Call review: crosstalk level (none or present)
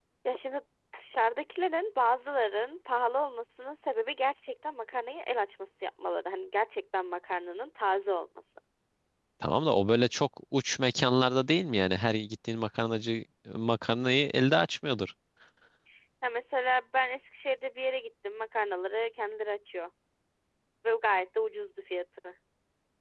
none